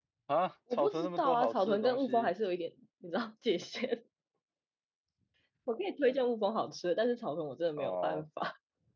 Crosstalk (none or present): present